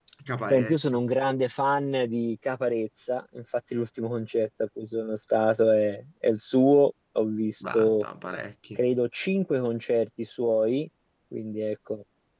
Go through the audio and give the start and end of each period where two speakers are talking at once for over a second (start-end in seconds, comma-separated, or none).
none